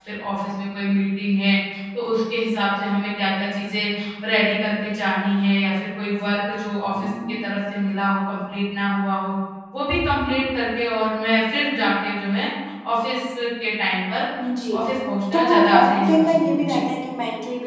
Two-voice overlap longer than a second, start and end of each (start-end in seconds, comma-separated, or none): 15.3-16.8